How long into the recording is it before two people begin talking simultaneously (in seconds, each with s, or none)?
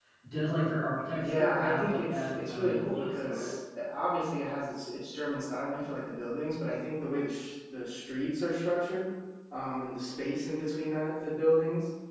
1.1 s